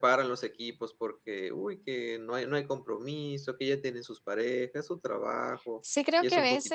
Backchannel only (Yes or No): No